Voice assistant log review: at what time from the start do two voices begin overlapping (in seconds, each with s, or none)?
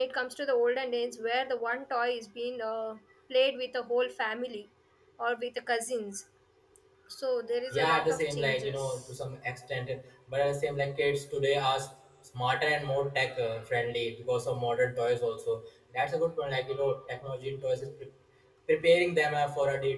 7.7 s